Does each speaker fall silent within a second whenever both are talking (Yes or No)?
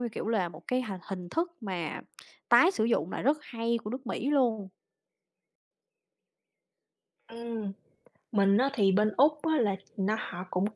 Yes